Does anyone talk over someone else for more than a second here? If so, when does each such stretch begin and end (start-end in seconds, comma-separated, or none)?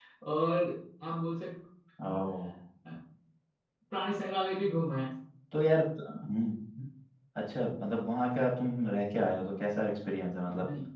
none